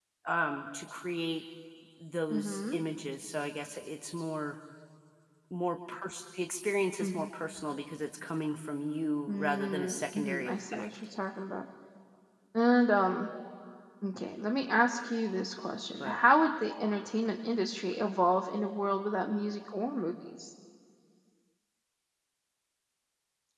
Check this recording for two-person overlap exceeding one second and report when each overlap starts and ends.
9.3-10.9

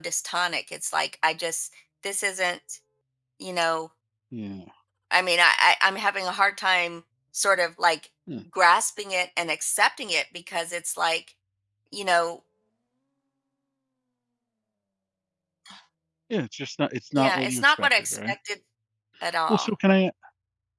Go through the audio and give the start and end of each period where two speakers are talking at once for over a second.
17.1-18.3

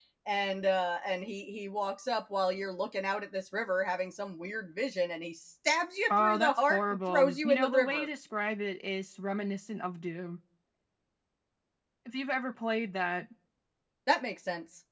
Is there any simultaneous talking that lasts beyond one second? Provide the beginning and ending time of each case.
6.1-8.1

